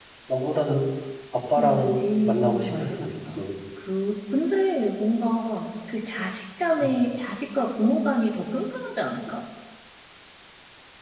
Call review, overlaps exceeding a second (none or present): present